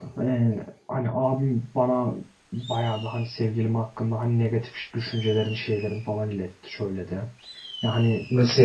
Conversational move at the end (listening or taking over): taking over